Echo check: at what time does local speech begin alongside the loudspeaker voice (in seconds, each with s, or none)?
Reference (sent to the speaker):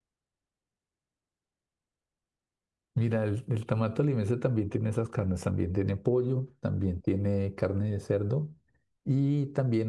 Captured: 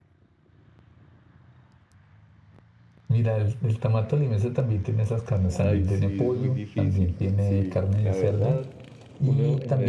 5.5 s